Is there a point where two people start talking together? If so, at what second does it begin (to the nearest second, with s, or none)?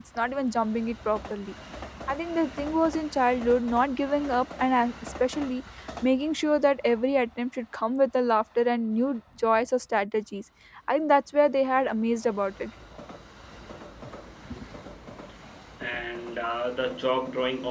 none